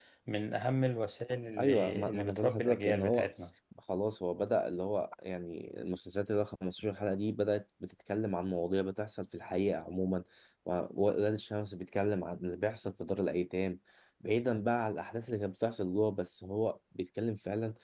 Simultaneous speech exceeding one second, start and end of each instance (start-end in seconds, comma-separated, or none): 1.6-3.3